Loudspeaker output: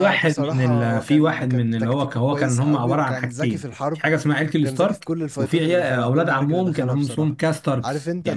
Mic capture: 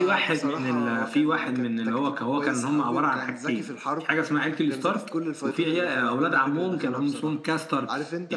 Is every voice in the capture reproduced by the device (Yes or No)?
Yes